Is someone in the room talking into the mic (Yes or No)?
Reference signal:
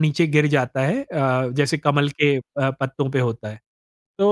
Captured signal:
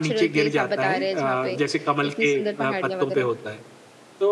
Yes